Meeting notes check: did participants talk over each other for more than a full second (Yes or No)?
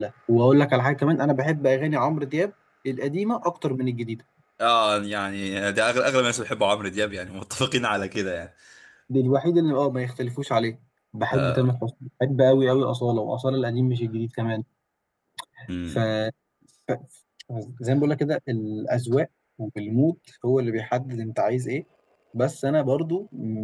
No